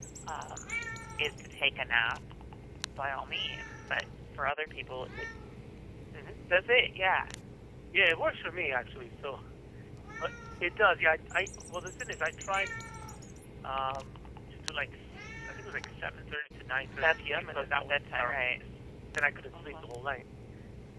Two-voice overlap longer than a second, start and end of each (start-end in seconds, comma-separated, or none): 17.0-18.6